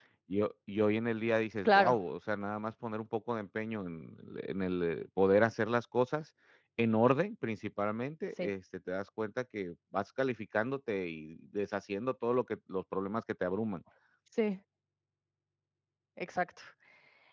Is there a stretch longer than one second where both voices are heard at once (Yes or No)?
No